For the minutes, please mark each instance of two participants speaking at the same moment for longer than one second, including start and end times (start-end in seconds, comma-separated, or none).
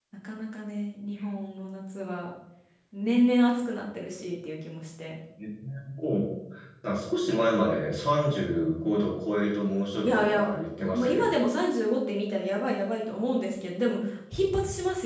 none